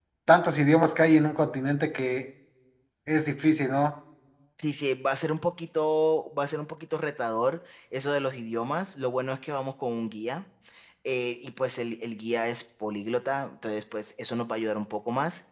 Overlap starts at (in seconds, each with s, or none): none